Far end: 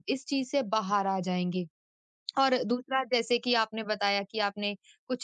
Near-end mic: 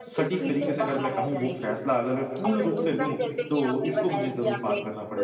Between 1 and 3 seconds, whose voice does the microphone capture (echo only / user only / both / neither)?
both